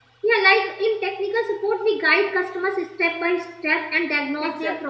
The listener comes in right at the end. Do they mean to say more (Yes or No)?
No